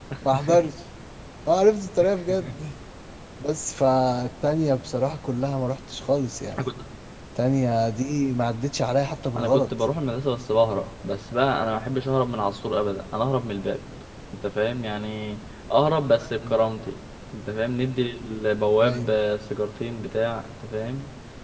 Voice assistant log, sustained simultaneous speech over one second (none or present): none